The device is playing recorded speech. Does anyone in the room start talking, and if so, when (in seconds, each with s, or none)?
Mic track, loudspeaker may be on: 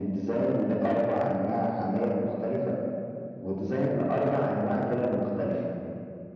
none